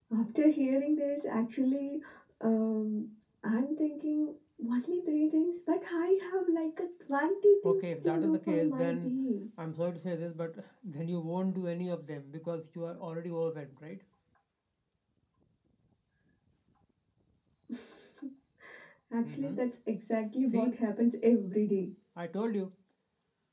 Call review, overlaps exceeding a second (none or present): present